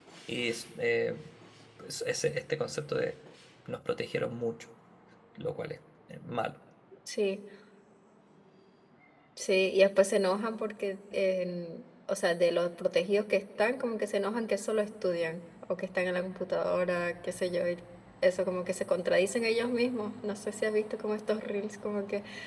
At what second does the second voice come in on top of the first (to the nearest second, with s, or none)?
none